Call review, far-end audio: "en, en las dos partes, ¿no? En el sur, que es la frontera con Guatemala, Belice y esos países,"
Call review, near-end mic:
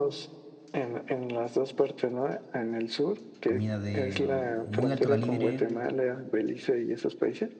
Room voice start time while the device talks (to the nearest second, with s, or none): 3 s